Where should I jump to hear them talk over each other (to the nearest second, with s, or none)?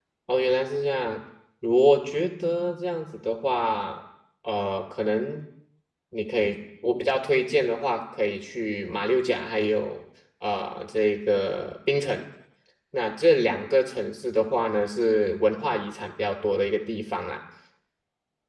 none